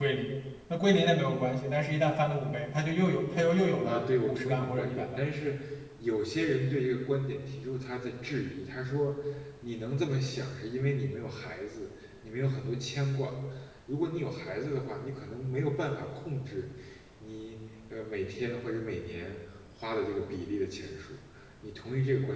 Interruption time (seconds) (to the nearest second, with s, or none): 4 s